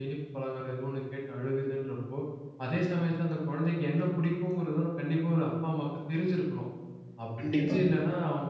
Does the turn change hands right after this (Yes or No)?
No